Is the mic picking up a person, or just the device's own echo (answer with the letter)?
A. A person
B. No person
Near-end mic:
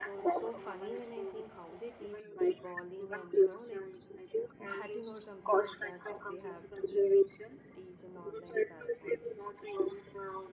A